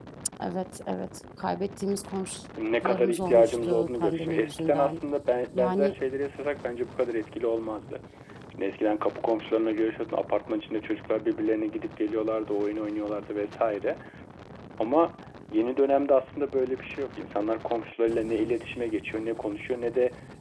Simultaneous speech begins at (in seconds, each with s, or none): 2.8 s